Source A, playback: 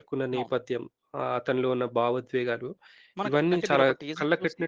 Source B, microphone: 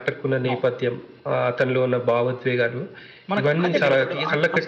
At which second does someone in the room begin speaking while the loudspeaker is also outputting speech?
3.6 s

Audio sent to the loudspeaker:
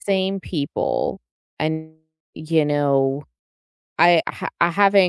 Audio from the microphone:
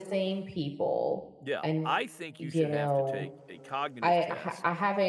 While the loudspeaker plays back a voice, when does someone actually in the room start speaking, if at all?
1.4 s

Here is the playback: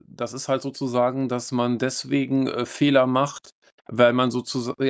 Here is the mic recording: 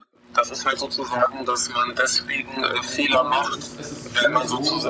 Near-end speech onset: 2.8 s

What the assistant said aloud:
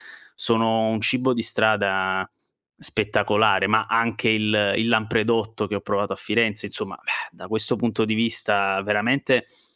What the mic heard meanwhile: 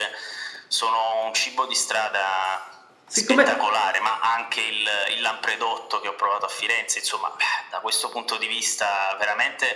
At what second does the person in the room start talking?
3.1 s

